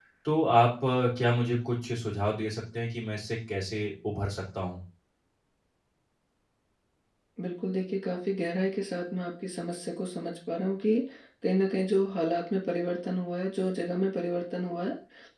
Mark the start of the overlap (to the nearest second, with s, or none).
none